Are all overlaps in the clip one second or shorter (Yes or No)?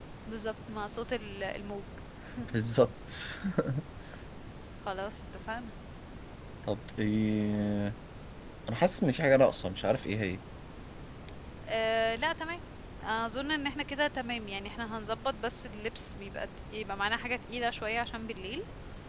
Yes